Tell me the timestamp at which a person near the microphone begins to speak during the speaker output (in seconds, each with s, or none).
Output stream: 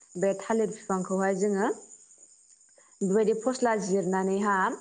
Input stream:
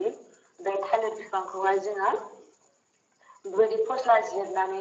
none